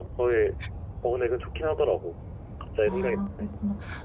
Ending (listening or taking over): taking over